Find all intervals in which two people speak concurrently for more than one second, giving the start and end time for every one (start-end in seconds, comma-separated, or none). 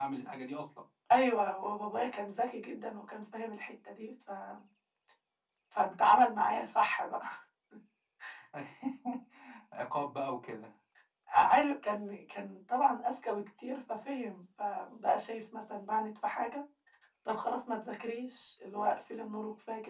none